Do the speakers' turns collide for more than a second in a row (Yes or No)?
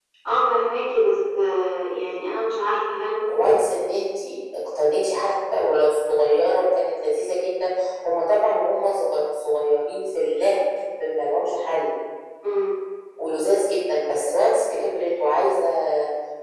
No